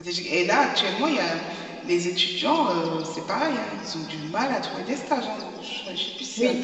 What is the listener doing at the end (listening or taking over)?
taking over